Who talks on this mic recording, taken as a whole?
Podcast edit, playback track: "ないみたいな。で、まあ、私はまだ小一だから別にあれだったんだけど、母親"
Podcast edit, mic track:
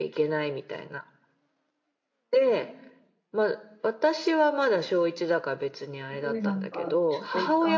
both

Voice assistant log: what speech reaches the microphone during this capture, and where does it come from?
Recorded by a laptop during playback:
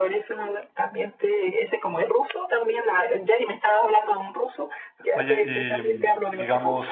both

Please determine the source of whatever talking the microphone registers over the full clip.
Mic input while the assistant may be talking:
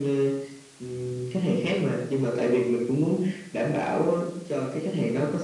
echo only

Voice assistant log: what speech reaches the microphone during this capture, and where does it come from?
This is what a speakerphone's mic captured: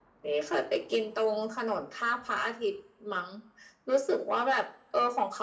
echo only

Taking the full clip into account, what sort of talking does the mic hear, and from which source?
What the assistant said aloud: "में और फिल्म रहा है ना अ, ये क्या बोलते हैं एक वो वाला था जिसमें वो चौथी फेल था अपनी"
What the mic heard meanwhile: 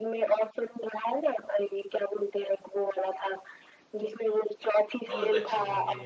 both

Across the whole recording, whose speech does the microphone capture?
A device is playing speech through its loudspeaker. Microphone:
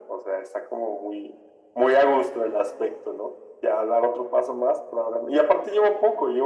echo only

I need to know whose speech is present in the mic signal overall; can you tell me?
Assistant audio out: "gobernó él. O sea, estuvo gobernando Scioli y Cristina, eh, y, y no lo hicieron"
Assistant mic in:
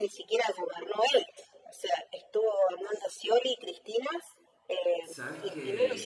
both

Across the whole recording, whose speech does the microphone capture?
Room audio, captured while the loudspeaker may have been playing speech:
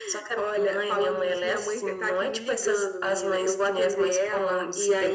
echo only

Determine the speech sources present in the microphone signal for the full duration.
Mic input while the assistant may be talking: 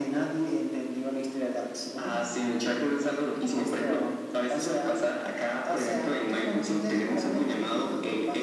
echo only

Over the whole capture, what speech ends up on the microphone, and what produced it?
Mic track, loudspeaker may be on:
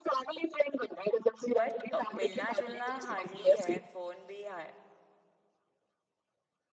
both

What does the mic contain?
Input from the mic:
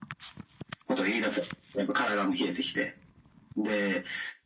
echo only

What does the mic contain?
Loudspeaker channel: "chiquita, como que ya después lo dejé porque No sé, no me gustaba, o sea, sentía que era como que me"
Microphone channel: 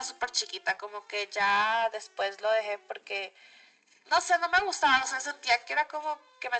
echo only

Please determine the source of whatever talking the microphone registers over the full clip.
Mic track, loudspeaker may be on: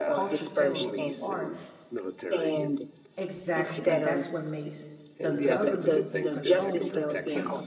both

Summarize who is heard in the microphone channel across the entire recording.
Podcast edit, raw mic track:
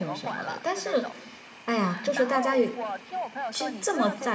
both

